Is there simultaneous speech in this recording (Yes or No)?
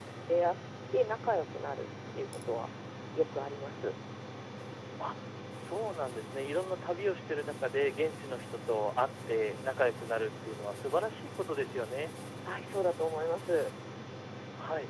No